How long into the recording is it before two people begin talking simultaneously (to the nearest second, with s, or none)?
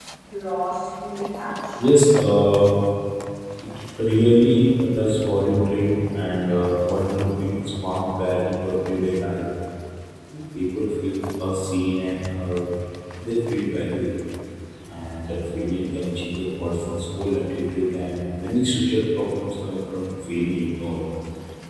none